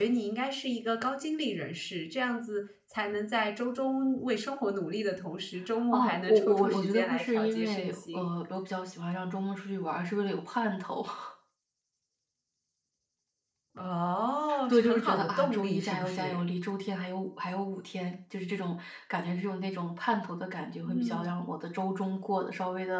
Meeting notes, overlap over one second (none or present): present